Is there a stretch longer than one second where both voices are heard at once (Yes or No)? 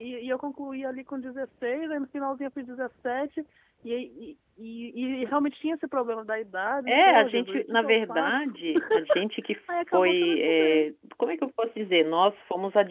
Yes